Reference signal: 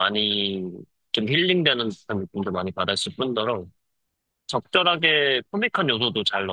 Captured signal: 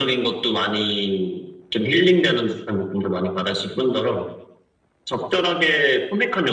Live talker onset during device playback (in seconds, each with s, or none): none